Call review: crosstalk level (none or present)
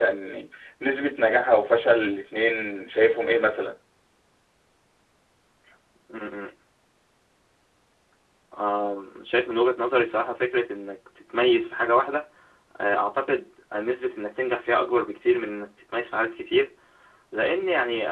none